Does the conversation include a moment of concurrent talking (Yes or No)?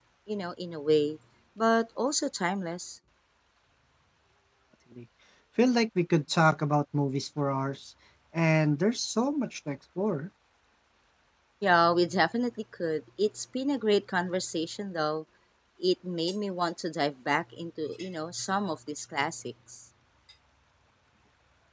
No